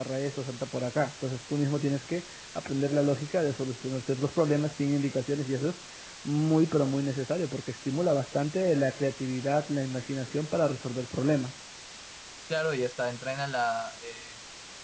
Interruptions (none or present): none